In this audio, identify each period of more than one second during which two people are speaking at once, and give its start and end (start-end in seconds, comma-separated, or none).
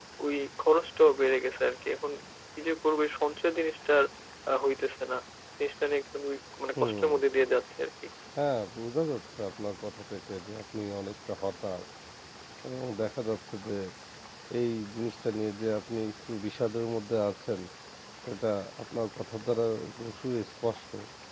none